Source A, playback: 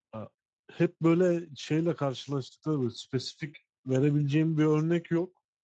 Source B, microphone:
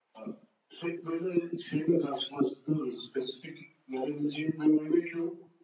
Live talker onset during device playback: none

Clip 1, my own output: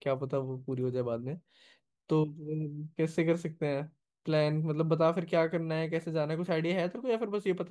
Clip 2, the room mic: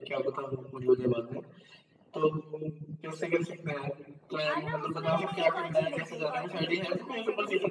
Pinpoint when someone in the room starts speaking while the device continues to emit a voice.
4.5 s

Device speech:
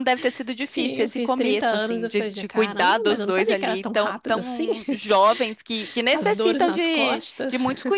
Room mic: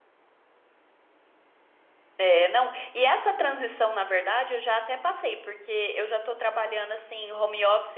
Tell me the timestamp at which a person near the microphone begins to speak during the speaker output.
2.2 s

